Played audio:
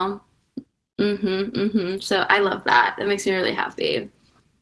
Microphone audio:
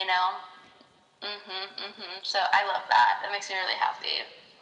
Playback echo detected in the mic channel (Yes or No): Yes